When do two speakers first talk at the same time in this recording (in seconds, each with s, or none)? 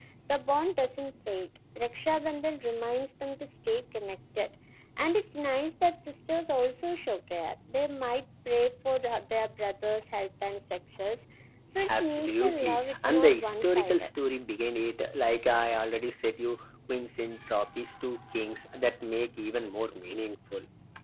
11.9 s